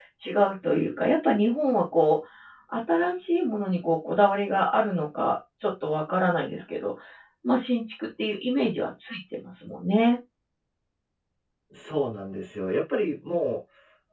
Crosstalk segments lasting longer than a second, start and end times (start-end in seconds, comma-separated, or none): none